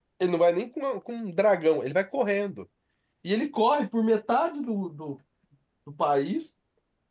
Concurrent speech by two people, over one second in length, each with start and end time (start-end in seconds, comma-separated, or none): none